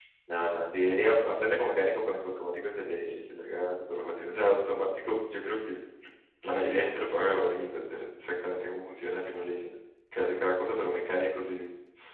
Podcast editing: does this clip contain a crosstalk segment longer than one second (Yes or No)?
No